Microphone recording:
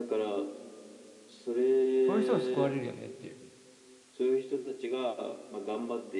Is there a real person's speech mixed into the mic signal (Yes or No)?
Yes